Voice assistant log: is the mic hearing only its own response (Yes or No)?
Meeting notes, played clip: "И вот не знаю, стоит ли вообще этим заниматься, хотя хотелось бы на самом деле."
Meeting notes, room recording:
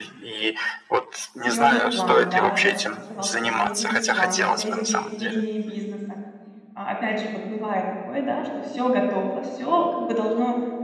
No